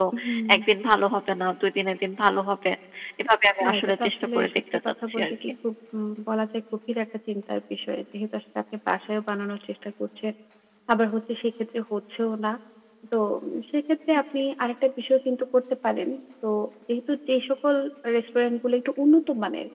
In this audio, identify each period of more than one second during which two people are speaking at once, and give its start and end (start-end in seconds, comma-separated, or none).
3.6-5.5